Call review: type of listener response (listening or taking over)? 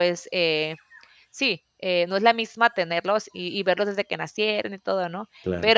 listening